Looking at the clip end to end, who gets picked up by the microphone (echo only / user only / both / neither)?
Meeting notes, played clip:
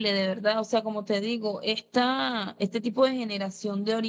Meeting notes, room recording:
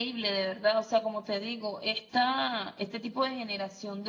echo only